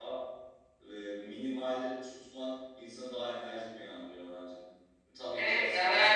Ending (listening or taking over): taking over